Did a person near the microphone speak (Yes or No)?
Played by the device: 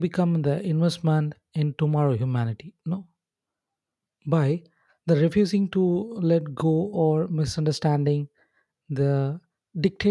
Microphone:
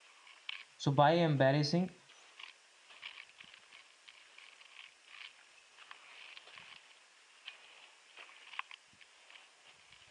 Yes